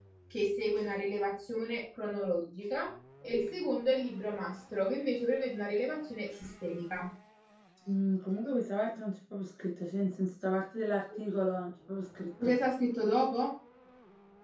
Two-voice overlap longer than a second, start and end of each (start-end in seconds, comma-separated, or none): none